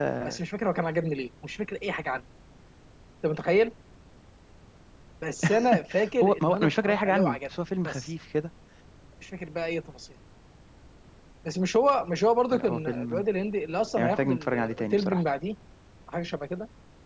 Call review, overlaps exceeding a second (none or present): present